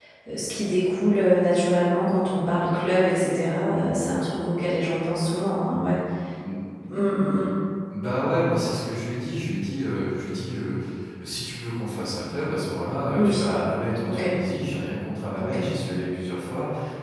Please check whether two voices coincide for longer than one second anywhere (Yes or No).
No